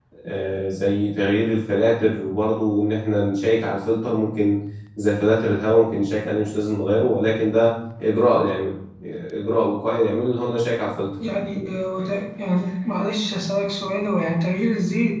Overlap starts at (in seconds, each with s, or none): none